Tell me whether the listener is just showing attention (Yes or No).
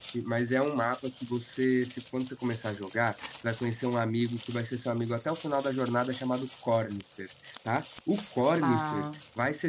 Yes